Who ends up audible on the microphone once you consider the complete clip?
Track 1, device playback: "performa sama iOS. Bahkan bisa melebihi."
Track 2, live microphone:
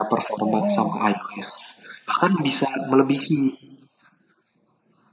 both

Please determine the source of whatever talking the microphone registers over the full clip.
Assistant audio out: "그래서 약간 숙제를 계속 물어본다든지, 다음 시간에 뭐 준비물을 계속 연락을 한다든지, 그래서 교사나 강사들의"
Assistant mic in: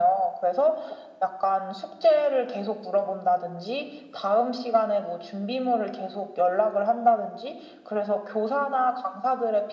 echo only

